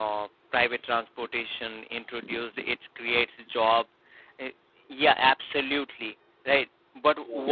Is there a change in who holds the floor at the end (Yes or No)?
No